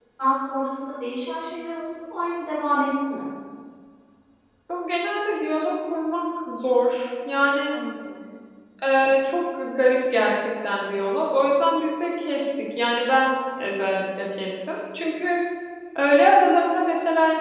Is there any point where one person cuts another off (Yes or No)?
No